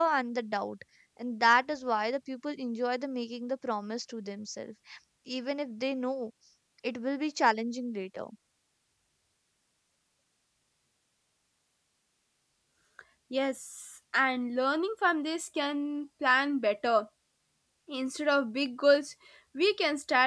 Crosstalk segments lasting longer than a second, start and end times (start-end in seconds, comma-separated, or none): none